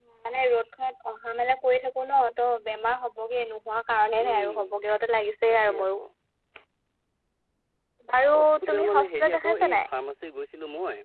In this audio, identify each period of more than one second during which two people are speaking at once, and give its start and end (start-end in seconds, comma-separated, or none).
8.3-9.9